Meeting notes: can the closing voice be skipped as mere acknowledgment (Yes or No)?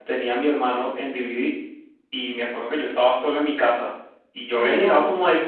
Yes